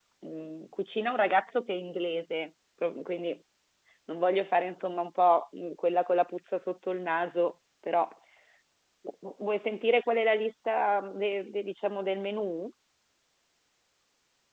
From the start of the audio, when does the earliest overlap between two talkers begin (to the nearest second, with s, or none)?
none